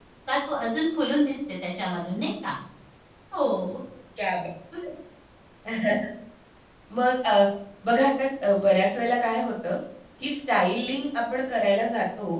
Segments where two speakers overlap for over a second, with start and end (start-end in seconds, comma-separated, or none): none